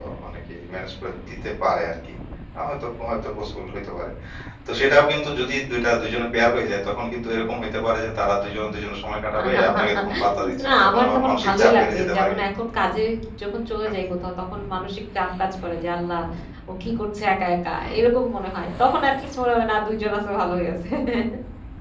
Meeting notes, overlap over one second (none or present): present